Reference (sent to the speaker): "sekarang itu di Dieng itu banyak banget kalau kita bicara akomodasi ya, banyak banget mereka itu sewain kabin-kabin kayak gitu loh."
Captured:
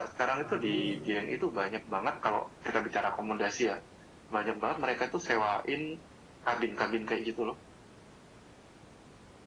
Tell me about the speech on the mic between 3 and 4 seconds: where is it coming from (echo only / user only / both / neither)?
echo only